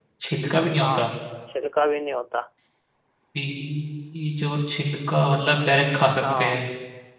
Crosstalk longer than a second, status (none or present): none